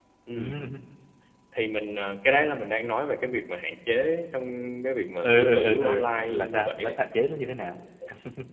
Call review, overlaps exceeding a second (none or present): present